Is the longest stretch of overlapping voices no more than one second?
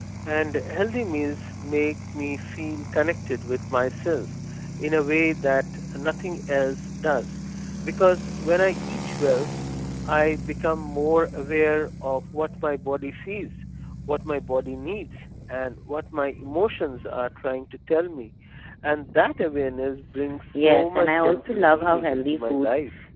No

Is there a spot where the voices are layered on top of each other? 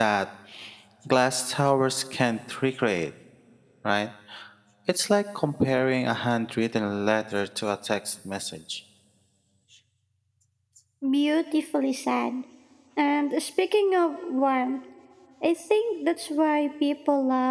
No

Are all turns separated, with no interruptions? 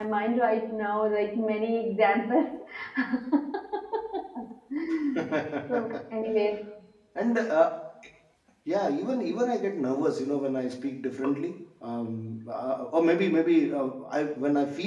Yes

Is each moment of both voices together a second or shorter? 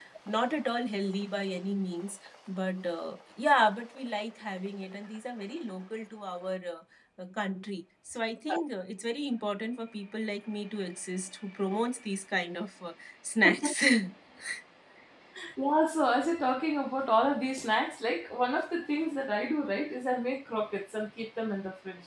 Yes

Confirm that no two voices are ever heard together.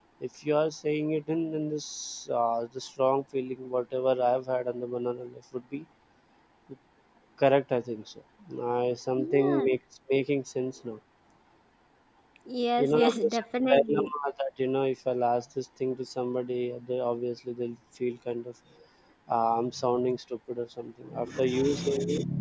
No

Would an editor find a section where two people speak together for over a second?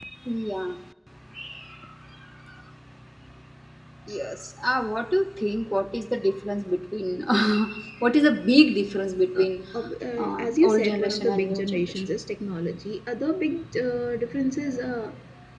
Yes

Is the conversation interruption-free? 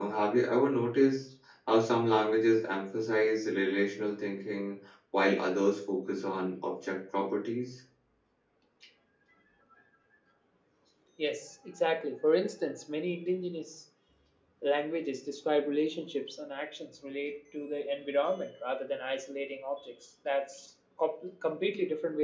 Yes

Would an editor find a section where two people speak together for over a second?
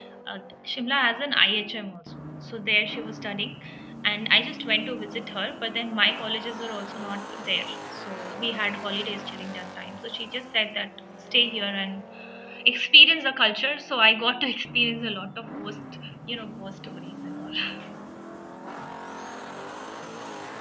No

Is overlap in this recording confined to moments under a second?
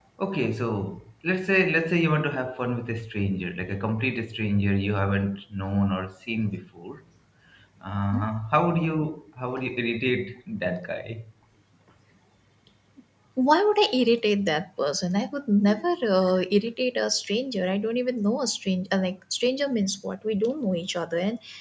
Yes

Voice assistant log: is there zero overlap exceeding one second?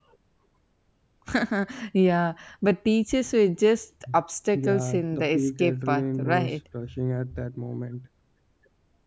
No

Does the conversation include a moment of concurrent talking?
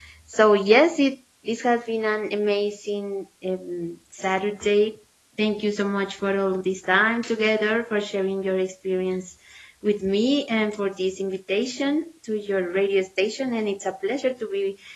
No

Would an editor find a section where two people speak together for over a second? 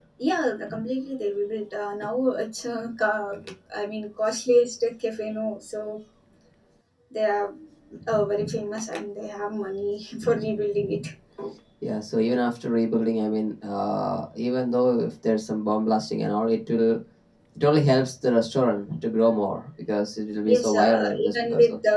Yes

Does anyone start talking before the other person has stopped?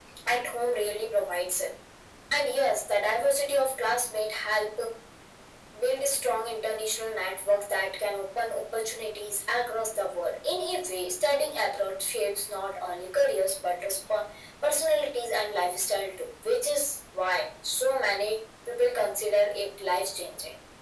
No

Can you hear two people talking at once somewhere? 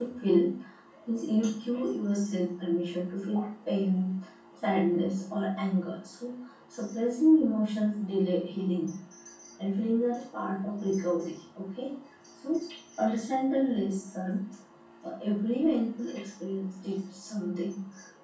No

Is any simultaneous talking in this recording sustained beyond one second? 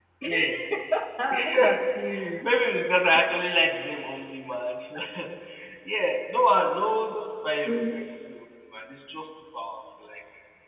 No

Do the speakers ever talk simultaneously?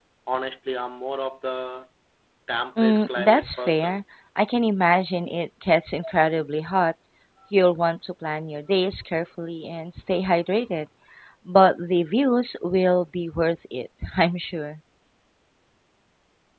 Yes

